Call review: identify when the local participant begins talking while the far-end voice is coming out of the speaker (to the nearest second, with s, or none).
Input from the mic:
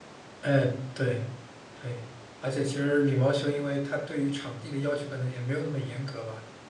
0 s